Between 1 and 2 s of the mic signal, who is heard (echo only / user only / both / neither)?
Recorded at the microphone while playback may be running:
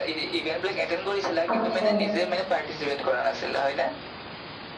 both